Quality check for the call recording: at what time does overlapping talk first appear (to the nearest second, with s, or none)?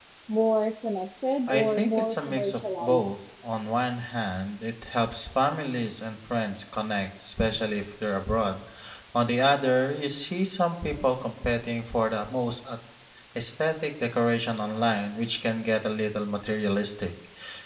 1 s